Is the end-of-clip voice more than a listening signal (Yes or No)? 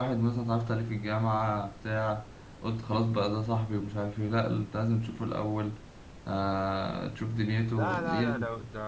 Yes